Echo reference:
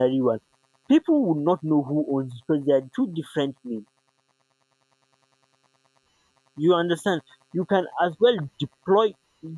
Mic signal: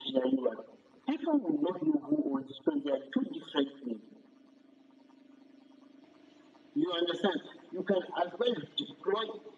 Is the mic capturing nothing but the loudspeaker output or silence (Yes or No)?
Yes